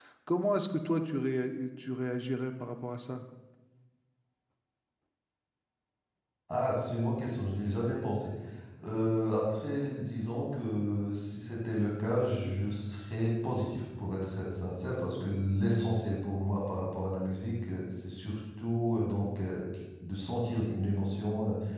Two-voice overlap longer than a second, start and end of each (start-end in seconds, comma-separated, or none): none